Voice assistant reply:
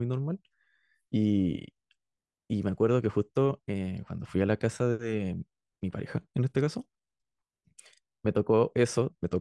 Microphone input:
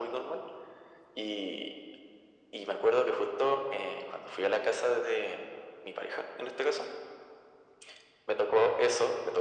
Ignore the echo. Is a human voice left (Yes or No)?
No